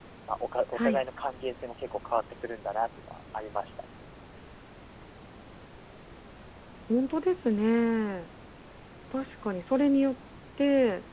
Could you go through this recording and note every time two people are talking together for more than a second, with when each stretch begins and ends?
none

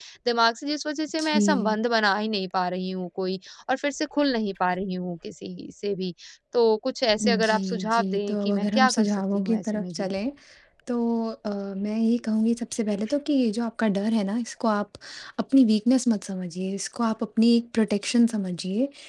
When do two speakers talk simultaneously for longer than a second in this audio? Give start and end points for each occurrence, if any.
7.2-10.1

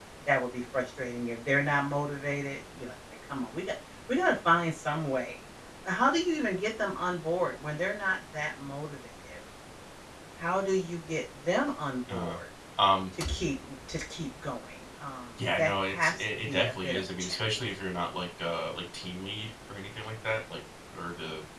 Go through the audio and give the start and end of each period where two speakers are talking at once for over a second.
15.6-17.4

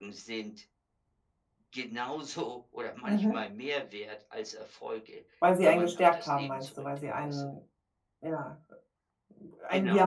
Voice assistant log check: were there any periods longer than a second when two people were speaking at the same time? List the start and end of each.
5.6-7.5

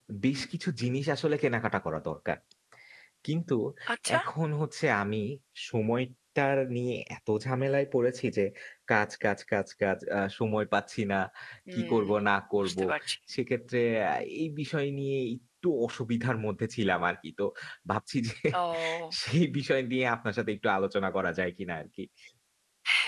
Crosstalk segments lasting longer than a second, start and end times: none

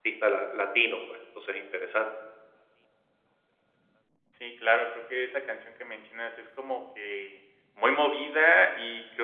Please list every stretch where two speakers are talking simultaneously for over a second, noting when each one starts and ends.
none

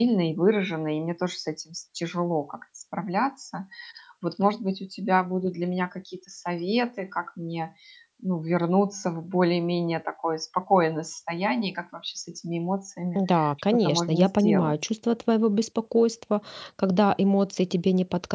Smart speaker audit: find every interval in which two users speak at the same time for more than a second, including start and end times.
13.2-14.8

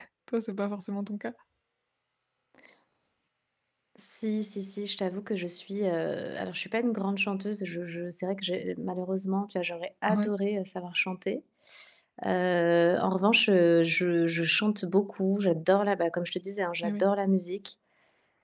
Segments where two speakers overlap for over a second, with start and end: none

